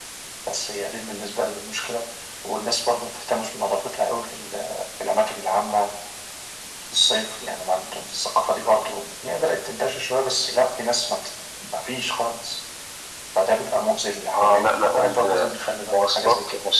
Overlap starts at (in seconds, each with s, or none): 14.3 s